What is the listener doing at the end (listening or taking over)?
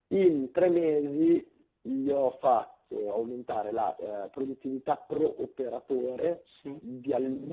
listening